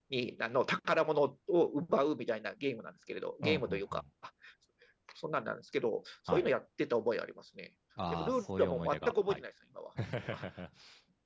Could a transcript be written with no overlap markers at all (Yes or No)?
No